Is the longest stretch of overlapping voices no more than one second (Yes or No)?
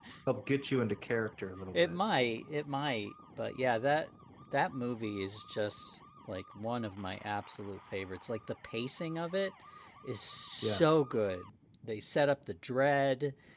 Yes